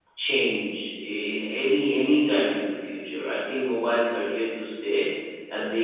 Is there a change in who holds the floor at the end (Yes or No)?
No